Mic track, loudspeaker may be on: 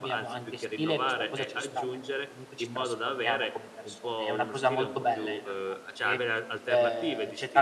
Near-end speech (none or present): present